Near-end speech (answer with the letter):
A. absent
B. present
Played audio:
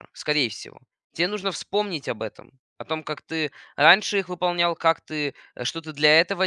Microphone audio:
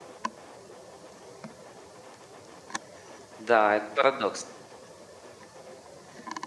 B